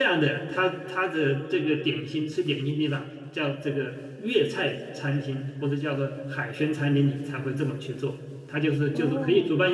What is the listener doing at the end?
listening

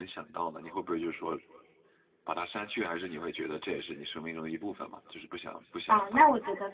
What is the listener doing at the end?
taking over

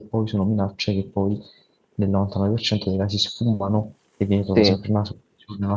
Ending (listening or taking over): listening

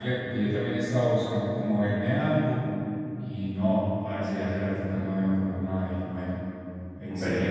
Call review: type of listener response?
listening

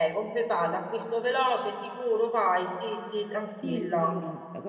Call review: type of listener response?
taking over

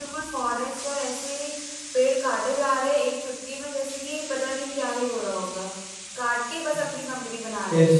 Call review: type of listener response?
taking over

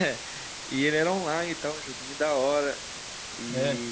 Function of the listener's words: listening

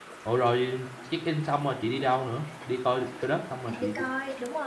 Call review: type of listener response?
taking over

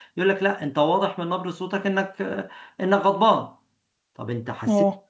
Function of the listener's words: listening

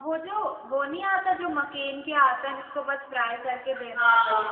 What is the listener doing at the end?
taking over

